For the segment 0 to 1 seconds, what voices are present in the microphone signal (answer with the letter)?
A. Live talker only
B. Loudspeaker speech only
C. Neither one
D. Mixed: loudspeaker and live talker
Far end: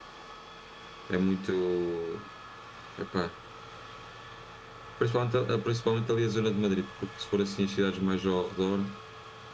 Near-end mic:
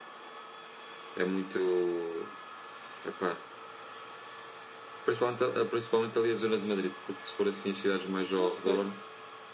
C